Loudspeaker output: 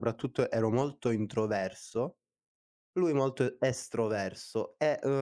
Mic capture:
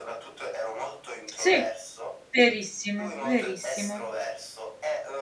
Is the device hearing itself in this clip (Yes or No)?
Yes